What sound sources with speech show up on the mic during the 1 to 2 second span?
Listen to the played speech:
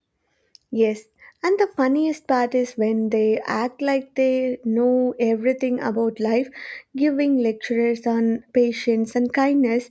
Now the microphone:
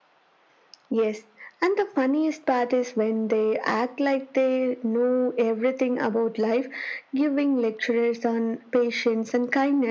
echo only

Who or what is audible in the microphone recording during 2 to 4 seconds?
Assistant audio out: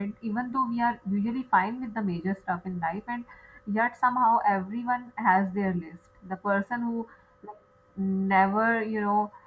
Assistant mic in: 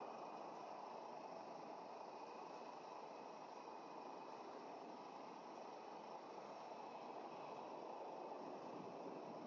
neither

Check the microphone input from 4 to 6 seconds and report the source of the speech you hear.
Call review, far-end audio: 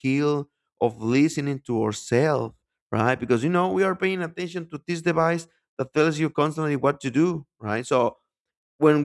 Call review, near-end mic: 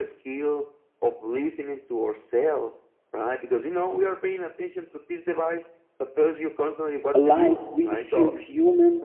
echo only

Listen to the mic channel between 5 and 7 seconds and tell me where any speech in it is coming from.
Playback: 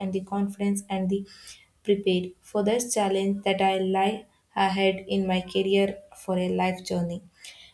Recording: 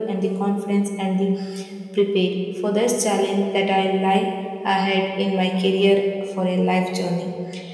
echo only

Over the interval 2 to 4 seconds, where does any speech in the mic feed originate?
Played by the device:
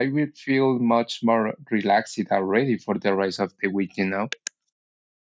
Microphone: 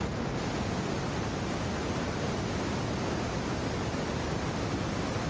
neither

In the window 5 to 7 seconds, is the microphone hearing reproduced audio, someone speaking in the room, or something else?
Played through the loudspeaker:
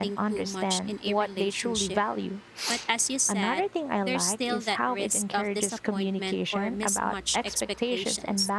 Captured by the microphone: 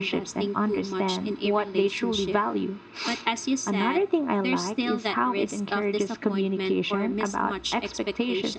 echo only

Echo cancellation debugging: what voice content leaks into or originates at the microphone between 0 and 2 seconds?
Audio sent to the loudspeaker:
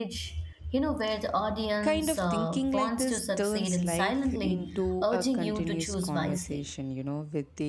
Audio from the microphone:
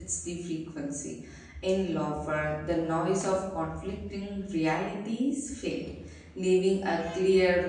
user only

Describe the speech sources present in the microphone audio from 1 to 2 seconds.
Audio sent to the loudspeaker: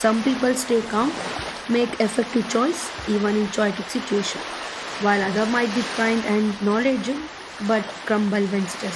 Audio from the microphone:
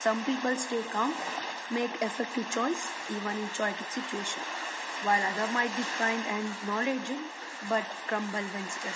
echo only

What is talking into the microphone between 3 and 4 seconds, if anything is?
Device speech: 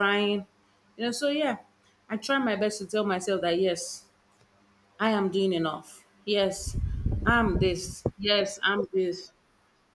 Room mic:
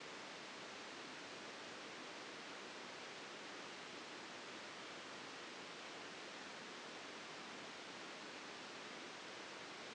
neither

